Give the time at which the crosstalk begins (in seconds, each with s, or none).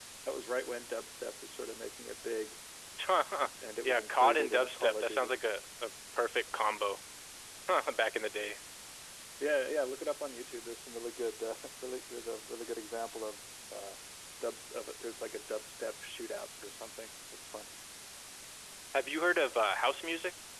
3.8 s